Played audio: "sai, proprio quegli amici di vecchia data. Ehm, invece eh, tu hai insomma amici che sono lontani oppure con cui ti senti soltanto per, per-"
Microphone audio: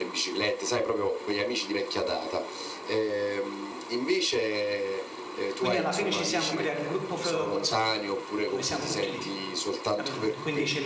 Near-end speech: present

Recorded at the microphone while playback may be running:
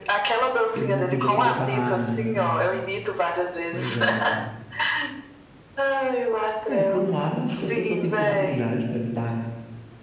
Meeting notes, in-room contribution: present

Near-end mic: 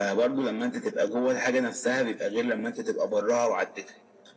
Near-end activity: none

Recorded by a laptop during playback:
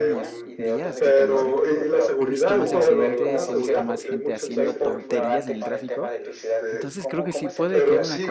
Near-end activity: present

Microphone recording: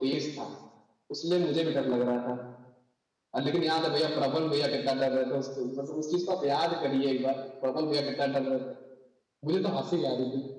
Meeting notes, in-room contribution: none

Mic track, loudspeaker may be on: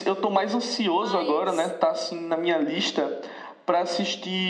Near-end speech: present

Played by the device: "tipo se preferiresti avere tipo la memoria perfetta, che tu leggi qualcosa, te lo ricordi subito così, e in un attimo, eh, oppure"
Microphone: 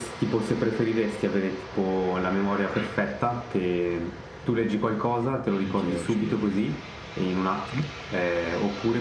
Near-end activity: present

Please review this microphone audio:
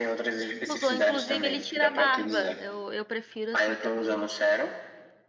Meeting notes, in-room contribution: present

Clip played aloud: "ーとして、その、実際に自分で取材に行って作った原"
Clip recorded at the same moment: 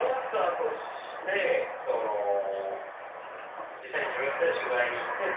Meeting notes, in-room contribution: none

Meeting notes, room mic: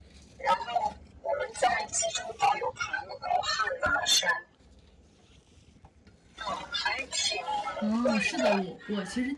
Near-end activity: present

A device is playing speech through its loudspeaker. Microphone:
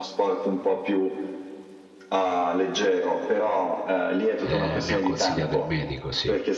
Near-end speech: present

